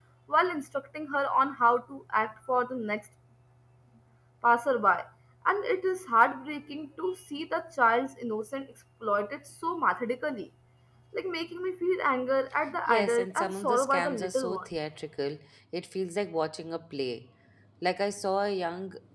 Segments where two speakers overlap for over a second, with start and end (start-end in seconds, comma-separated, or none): 12.9-14.7